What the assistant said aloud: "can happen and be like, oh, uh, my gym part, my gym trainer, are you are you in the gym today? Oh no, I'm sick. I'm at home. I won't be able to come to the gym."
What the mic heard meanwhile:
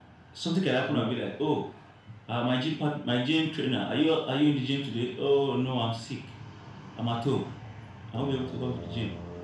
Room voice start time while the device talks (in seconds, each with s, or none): 0.8 s